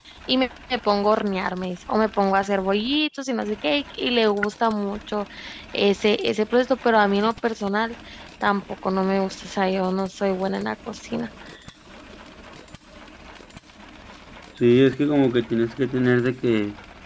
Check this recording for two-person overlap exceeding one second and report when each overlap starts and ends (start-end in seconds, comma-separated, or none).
none